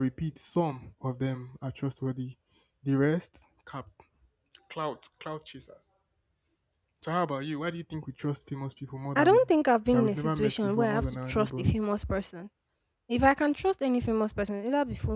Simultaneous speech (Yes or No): Yes